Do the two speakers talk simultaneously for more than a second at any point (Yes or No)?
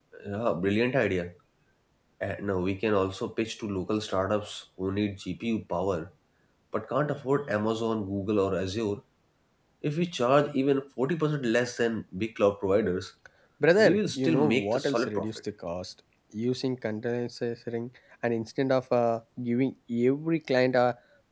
Yes